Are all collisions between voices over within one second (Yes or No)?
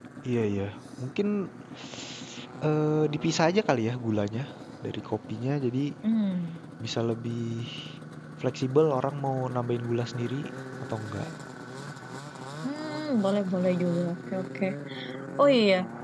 Yes